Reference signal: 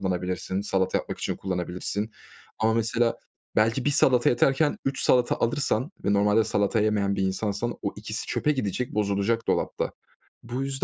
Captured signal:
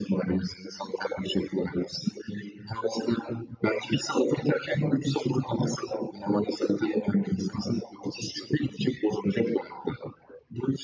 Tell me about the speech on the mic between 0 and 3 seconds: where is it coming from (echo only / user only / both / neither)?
echo only